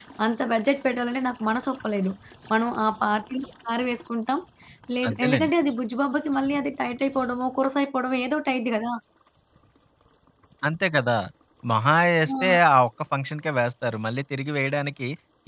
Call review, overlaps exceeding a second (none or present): none